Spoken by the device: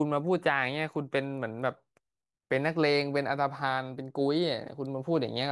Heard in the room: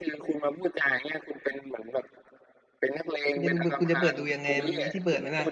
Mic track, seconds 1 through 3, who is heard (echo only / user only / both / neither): echo only